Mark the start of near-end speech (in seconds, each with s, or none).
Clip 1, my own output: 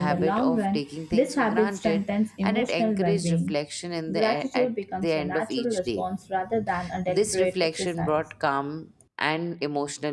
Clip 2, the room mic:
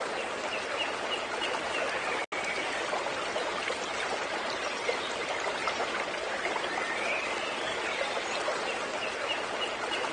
none